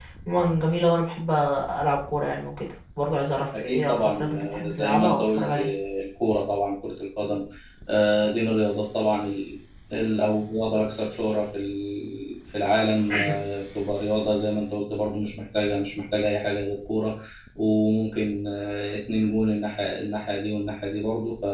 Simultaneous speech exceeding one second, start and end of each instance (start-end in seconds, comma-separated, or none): 3.5-5.7